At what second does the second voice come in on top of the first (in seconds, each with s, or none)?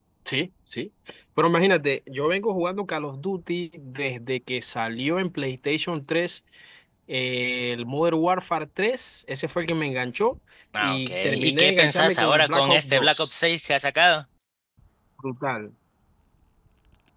10.8 s